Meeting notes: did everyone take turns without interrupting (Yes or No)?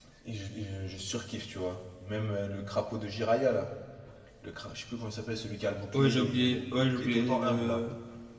No